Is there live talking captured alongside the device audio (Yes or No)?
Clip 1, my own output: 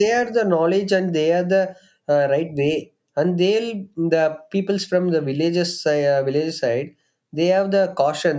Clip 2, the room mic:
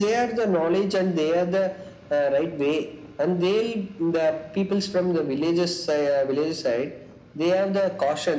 No